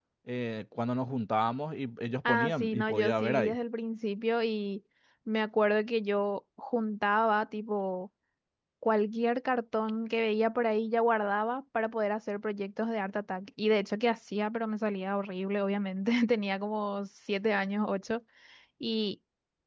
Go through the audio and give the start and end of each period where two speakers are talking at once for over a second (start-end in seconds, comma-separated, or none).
2.3-3.6